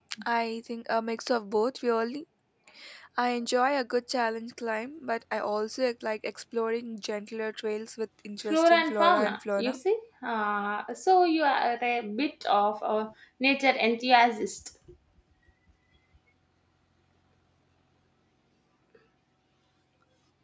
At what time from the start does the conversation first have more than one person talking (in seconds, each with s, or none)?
8.5 s